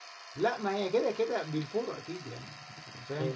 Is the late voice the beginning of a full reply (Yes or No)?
No